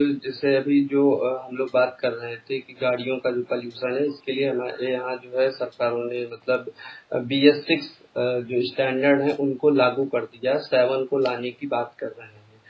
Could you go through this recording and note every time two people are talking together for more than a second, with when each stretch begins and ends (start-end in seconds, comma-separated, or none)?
none